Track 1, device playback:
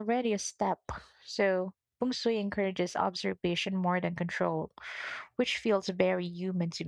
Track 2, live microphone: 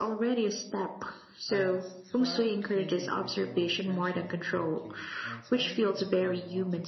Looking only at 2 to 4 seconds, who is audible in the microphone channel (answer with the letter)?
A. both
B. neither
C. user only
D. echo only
A